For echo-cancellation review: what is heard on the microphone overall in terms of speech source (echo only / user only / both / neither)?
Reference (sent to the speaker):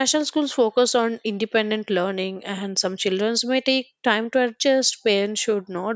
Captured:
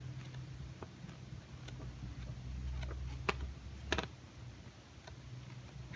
neither